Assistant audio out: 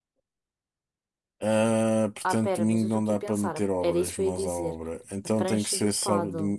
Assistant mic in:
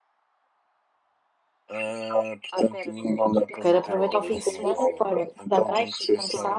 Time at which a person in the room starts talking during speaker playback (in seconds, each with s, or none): 3.5 s